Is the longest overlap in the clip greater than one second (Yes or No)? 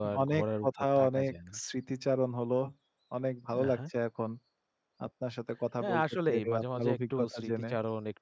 Yes